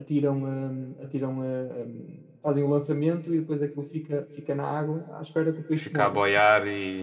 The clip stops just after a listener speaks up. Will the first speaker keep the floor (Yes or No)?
No